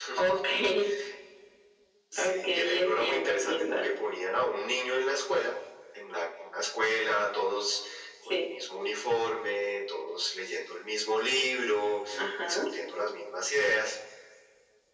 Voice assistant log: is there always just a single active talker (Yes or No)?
No